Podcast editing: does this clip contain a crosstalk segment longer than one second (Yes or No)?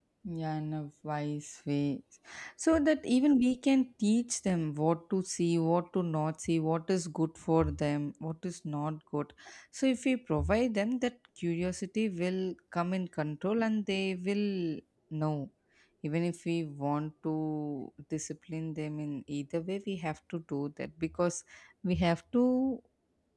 No